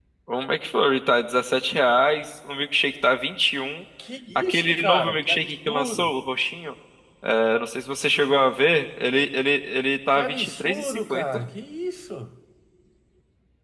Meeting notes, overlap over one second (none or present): present